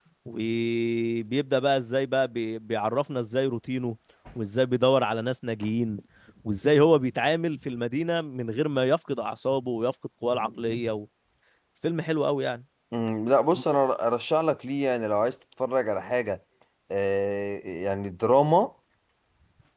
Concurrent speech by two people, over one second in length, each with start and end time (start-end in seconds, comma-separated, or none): none